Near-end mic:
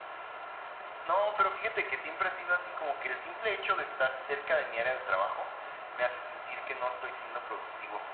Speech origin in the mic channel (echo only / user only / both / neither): echo only